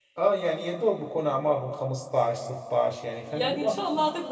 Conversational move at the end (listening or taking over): taking over